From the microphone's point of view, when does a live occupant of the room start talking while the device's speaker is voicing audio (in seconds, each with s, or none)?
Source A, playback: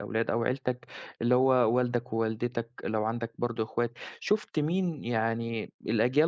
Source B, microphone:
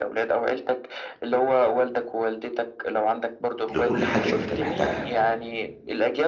3.8 s